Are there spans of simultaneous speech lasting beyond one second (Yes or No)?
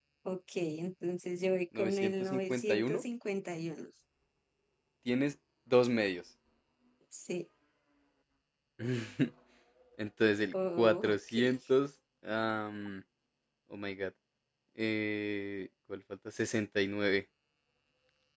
Yes